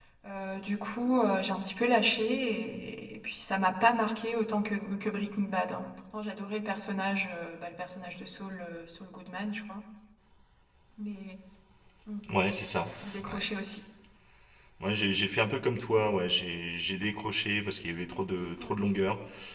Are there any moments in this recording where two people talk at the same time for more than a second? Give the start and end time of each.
none

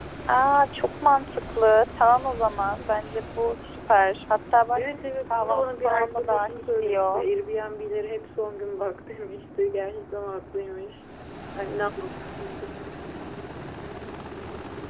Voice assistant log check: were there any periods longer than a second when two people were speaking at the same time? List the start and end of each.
5.3-7.2

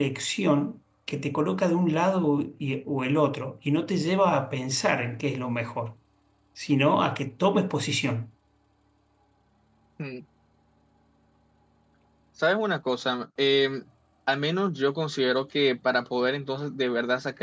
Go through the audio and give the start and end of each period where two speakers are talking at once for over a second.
none

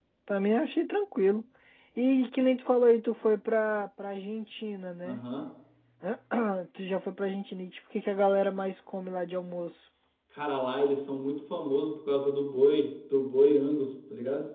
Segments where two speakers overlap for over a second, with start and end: none

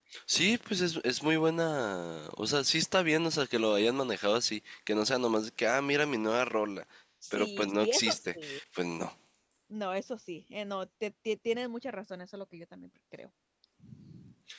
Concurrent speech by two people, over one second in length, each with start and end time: 7.3-8.6

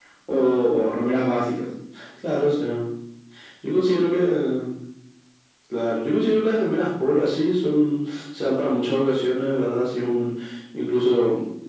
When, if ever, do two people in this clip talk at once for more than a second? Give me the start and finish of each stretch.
none

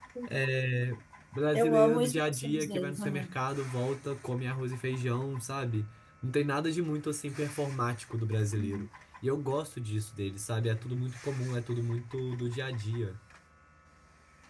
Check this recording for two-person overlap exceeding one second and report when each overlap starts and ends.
1.5-3.3

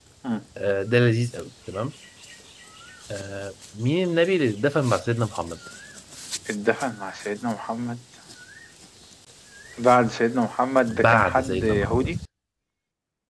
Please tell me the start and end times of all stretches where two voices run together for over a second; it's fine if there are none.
10.9-12.1

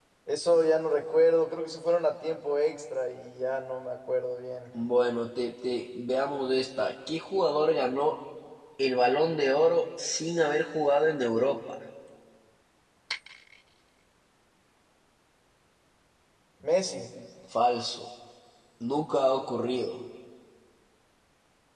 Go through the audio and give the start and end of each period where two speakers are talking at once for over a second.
none

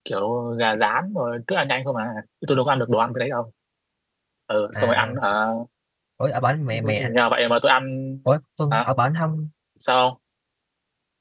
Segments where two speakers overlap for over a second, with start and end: none

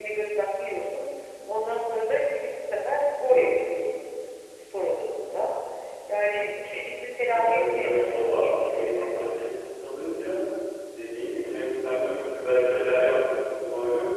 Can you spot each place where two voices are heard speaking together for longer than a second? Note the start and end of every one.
7.3-9.1

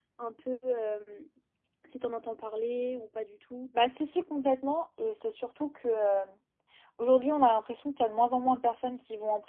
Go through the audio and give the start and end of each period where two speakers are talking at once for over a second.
none

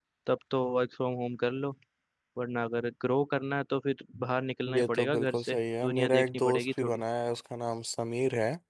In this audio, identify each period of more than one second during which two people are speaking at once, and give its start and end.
4.8-7.0

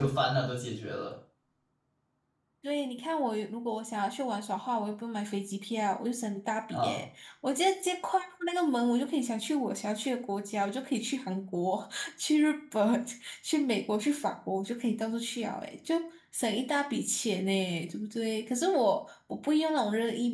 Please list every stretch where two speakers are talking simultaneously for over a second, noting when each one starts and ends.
none

